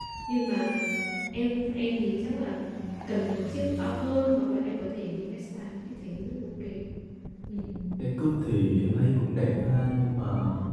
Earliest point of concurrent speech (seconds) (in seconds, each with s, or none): none